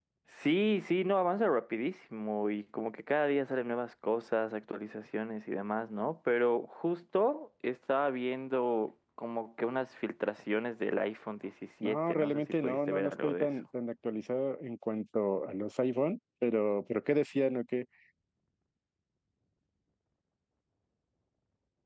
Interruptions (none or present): present